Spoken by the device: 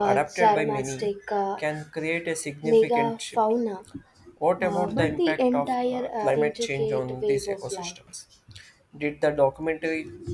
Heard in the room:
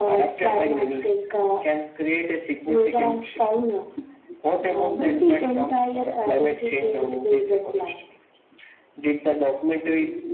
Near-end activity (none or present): none